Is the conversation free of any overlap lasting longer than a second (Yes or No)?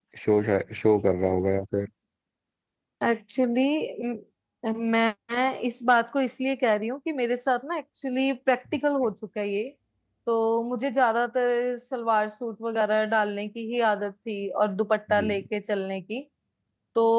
Yes